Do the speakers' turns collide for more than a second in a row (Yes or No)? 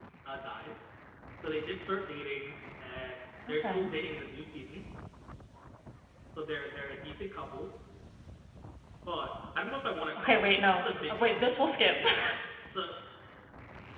Yes